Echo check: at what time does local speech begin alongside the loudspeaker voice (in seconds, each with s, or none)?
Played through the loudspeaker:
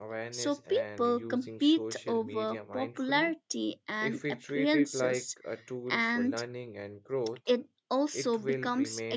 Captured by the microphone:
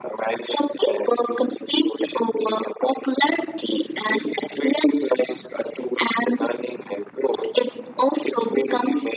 none